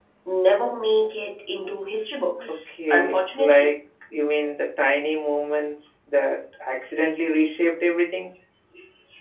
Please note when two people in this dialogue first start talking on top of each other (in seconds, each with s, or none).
2.4 s